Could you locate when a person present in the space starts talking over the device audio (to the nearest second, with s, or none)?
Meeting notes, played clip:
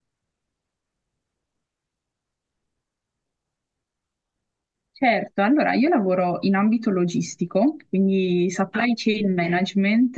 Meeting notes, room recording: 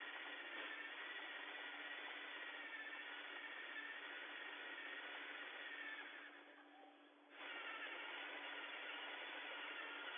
none